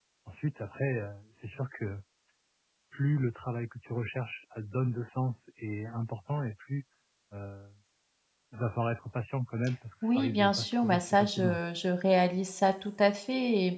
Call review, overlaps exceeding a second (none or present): present